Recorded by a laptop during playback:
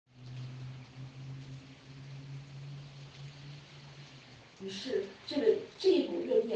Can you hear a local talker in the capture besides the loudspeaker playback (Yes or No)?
Yes